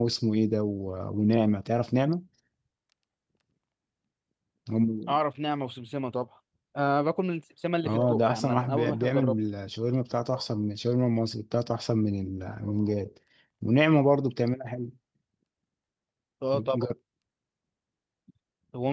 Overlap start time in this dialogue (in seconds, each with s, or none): 7.8 s